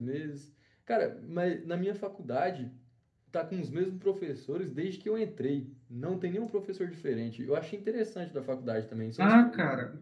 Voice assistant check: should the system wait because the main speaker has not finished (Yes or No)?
No